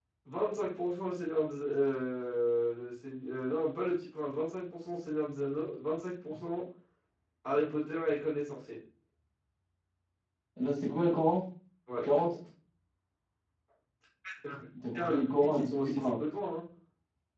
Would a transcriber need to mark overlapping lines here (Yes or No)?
Yes